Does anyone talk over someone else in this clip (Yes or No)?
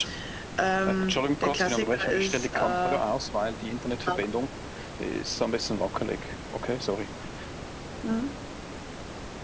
Yes